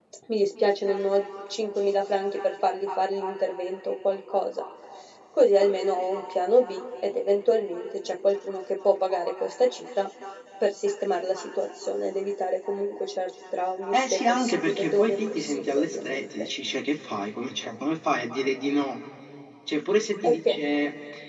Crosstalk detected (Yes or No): Yes